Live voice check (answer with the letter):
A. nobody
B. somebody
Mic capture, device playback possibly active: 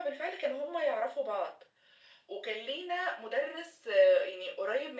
A